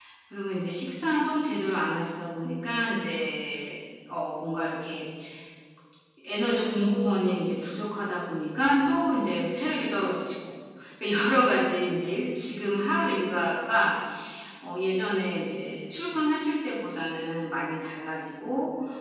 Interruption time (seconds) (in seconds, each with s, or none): none